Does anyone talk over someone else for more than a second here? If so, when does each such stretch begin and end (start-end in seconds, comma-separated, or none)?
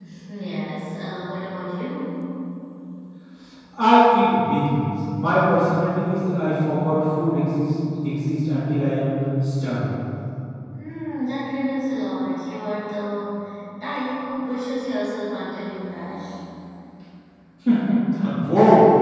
none